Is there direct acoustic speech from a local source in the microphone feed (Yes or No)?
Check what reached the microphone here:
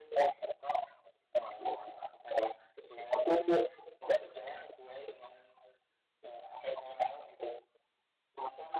No